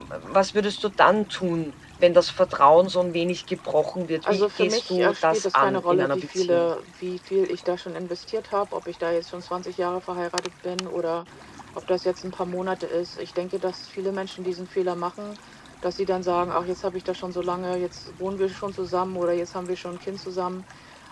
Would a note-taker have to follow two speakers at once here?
Yes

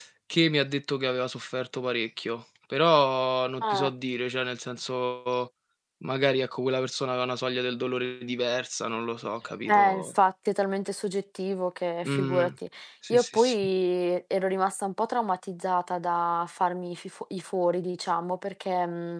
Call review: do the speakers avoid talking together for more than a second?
Yes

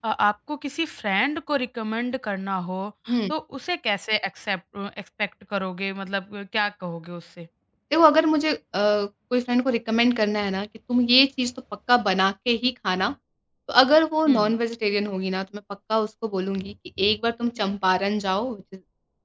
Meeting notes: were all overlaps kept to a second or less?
Yes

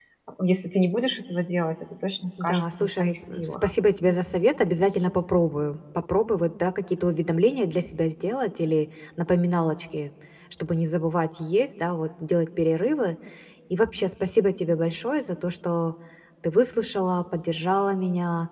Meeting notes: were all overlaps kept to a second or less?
No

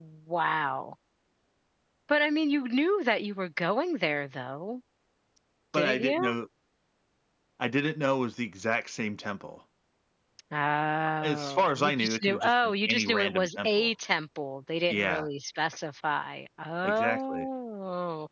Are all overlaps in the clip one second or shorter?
No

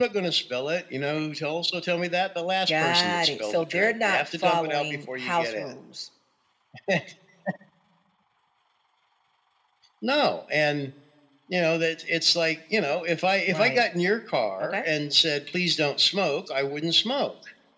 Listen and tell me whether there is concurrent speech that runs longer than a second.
Yes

